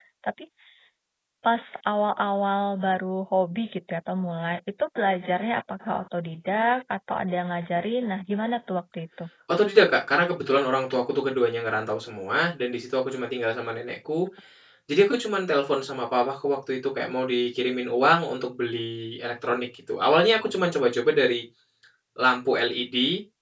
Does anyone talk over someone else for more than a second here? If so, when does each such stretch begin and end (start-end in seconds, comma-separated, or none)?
none